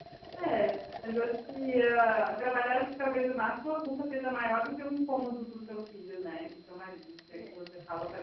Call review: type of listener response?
listening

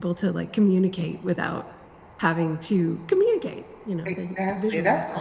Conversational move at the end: taking over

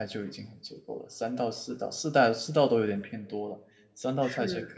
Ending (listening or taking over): listening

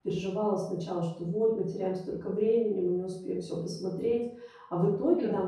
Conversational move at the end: listening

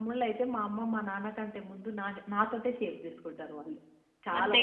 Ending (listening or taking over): listening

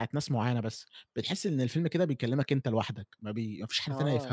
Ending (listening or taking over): taking over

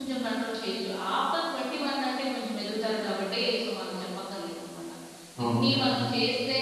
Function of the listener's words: listening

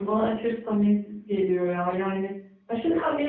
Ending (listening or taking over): listening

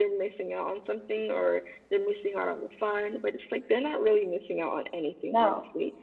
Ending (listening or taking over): listening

